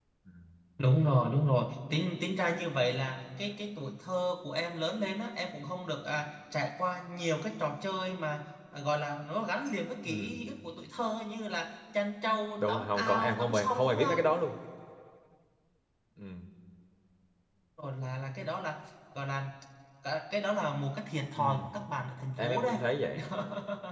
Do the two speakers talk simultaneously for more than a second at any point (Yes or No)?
Yes